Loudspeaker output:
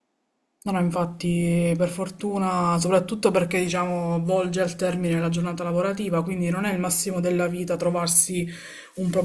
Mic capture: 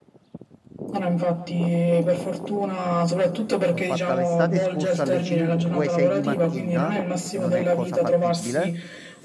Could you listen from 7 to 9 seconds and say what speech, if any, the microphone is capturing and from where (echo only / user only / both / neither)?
both